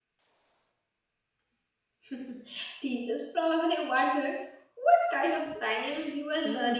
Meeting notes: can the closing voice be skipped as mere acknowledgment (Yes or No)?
No